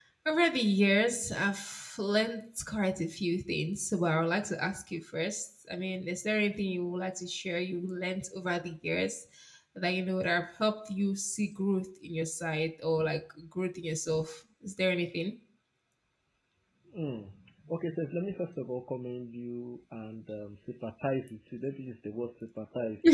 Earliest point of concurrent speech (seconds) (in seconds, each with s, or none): none